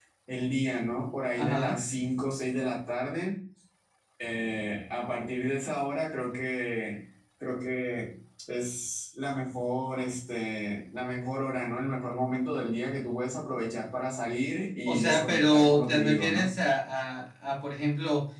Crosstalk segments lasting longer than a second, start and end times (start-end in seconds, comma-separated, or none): 14.9-16.5